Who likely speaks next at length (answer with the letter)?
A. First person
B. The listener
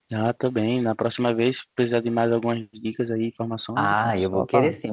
B